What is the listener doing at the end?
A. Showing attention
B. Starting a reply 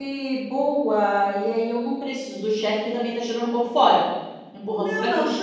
B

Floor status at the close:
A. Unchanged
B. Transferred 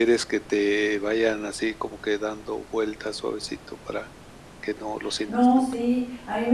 B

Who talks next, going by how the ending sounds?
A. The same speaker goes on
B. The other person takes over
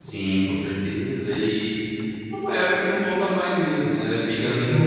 A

